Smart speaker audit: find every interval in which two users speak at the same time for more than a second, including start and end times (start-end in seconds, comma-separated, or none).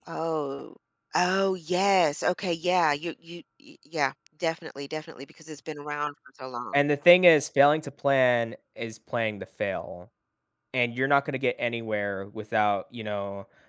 none